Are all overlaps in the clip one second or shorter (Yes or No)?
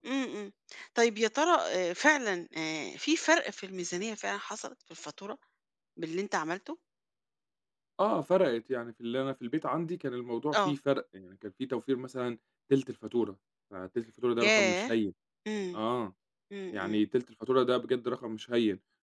Yes